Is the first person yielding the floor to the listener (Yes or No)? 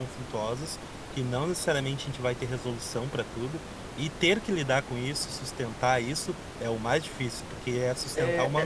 Yes